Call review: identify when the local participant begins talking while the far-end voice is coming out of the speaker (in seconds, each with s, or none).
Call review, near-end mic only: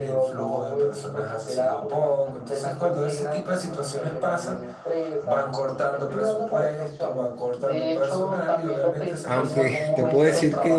9.2 s